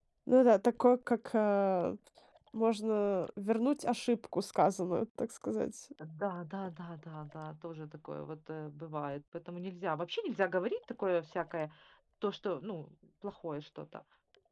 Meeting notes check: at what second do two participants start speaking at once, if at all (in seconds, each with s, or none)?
none